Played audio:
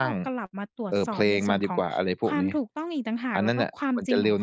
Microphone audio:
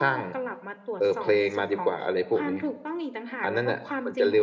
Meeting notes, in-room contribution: none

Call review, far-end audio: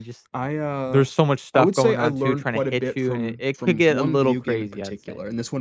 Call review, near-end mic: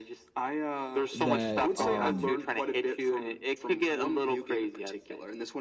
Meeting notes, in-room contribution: present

